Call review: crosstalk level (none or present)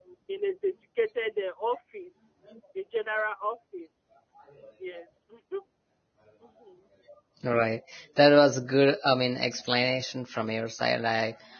none